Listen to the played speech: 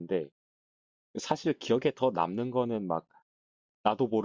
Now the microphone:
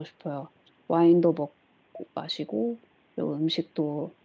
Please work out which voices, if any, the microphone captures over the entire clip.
user only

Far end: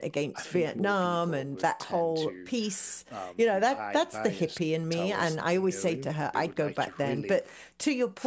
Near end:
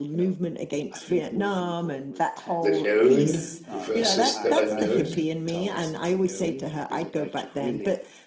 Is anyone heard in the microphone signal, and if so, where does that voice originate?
both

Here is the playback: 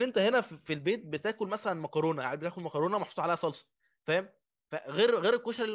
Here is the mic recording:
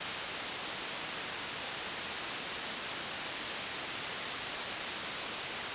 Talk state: neither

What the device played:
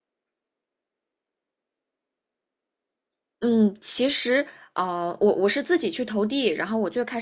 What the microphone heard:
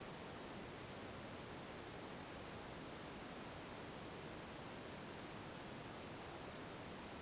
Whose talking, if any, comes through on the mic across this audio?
neither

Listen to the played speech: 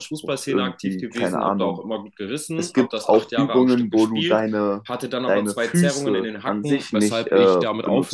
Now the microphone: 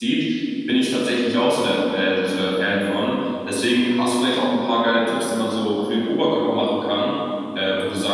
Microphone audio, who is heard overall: user only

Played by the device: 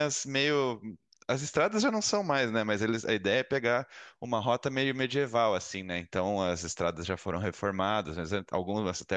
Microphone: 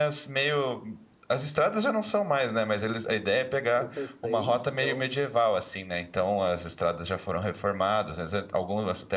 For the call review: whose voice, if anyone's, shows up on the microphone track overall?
both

